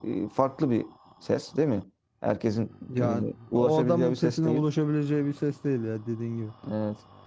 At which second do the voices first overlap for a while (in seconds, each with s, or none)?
2.9 s